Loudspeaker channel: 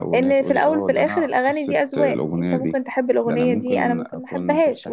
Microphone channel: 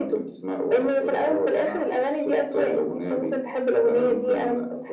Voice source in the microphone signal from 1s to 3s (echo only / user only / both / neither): echo only